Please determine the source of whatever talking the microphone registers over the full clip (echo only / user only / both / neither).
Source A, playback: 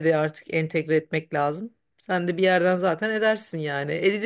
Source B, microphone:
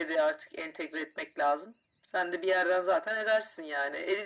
echo only